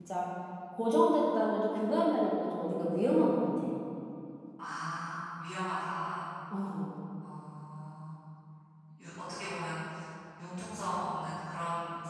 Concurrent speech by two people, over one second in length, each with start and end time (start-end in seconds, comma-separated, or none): none